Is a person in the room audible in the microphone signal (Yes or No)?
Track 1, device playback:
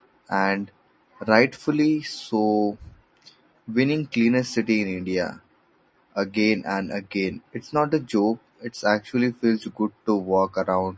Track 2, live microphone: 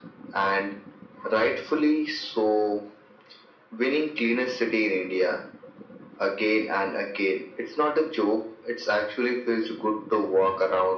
No